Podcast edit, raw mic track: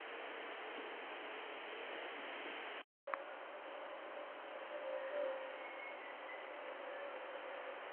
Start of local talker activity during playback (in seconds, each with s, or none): none